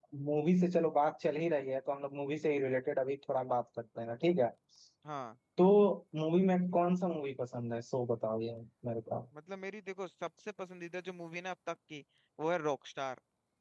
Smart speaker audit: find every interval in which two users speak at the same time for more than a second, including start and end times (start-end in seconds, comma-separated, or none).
none